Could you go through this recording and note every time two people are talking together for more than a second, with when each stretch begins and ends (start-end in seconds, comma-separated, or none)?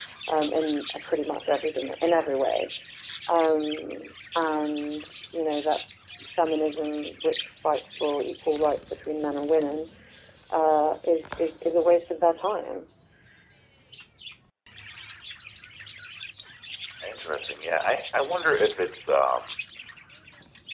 none